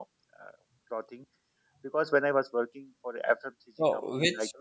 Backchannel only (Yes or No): No